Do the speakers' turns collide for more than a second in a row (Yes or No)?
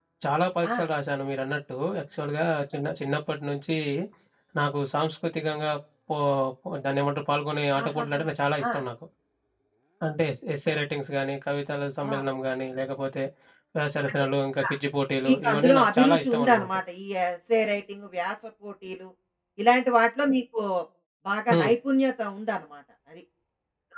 Yes